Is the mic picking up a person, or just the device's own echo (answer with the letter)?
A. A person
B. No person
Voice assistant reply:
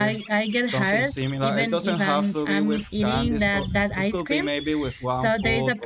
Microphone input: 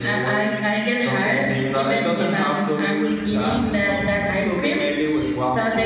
B